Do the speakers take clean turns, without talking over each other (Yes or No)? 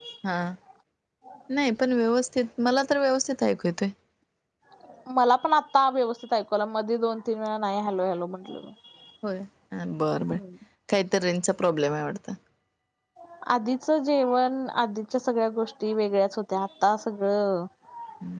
Yes